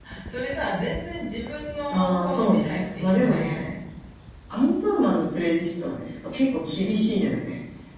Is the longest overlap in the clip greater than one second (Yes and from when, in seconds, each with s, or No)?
Yes, from 1.9 s